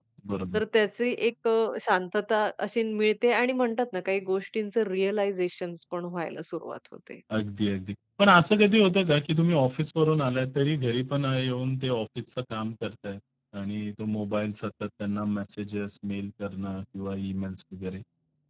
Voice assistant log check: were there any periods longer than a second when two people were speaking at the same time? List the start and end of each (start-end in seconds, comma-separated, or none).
none